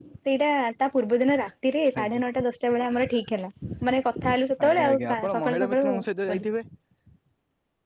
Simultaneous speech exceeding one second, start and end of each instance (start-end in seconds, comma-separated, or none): 4.7-5.9